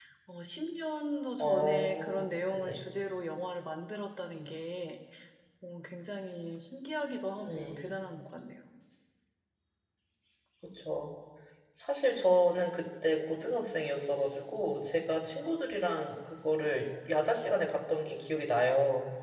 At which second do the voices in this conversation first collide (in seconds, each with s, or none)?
1.4 s